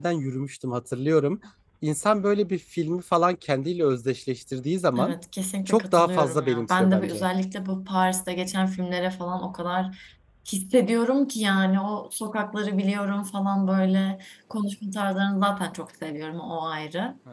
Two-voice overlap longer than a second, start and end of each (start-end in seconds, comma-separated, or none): 5.7-7.2